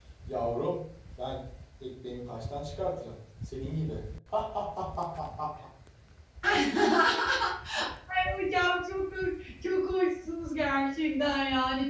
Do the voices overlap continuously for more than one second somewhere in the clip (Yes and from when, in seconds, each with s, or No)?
No